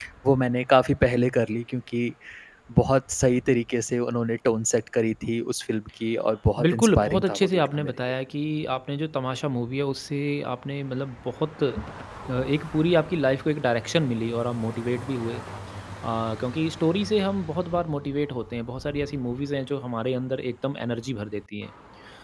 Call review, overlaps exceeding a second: present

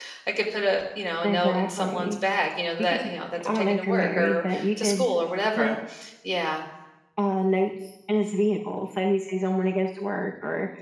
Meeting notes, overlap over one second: present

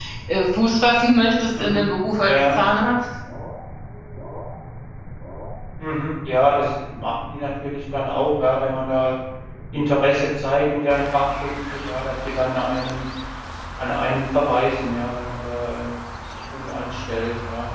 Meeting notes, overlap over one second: none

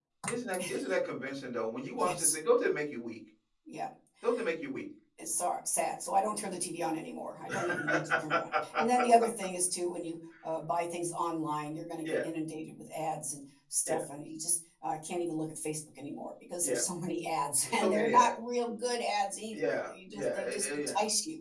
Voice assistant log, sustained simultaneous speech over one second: present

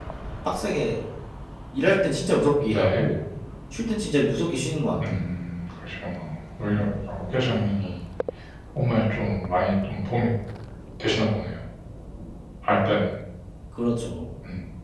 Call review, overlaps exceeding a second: none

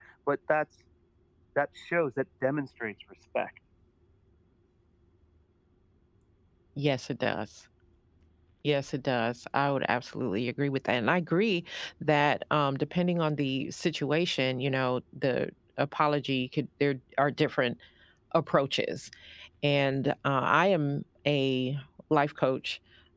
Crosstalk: none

